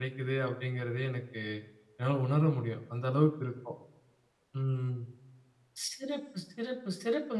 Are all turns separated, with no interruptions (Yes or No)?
Yes